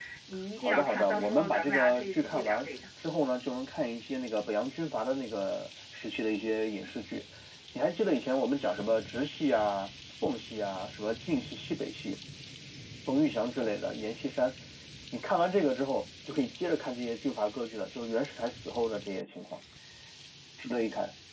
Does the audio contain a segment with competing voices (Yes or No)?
Yes